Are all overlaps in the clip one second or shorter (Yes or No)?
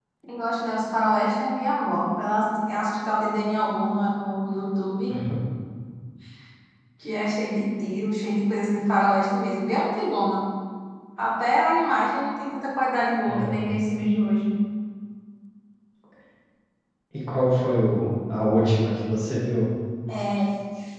Yes